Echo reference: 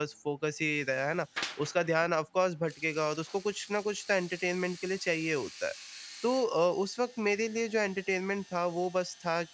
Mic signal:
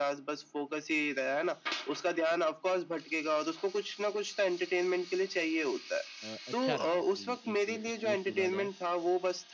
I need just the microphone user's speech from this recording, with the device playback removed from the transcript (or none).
अ, अच्छा रहा कि एक स्पोर्ट चुना जाए,